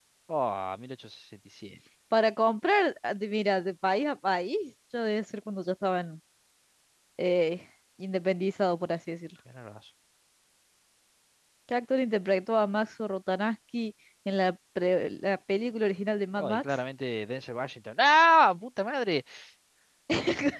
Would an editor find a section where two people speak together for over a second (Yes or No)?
No